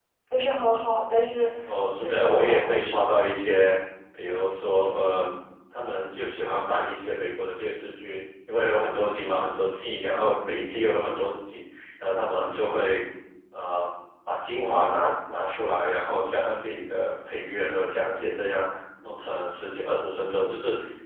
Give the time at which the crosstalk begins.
2.0 s

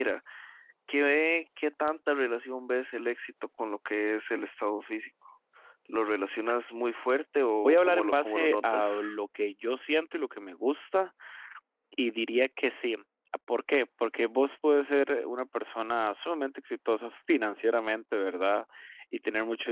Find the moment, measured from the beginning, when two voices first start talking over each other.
7.6 s

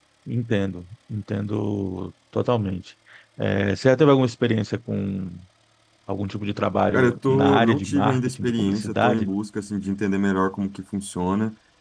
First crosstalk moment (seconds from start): 6.9 s

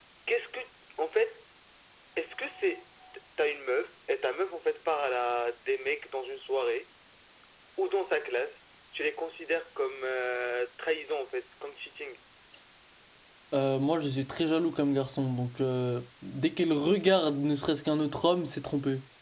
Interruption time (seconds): none

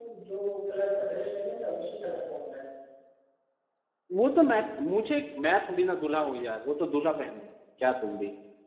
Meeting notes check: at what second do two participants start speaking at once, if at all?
none

